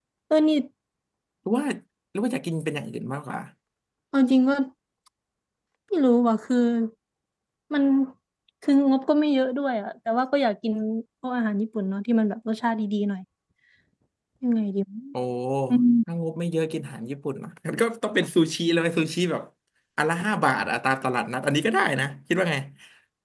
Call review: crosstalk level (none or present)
none